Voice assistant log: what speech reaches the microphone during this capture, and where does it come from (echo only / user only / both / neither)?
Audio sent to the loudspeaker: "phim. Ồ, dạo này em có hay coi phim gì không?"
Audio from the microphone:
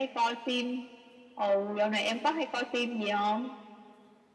echo only